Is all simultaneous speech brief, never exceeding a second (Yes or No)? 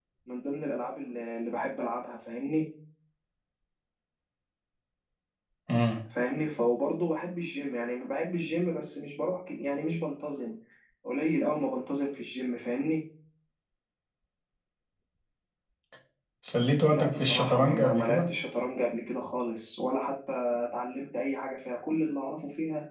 No